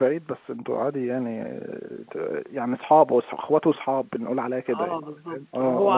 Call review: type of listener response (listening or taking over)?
taking over